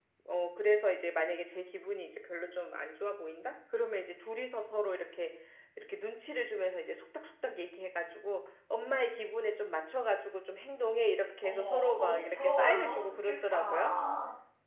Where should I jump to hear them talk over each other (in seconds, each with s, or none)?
11.4 s